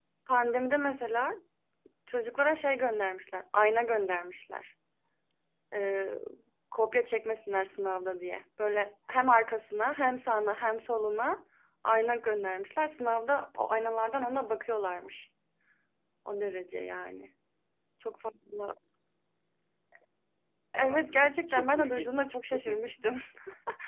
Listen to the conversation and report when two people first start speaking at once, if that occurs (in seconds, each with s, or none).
20.8 s